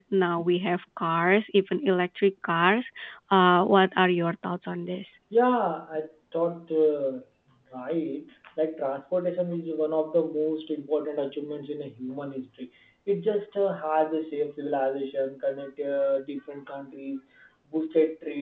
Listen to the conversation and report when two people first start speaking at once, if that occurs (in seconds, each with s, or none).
none